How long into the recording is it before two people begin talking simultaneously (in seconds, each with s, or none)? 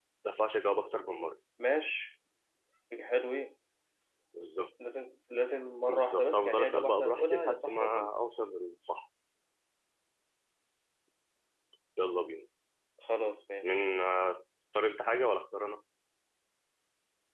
5.9 s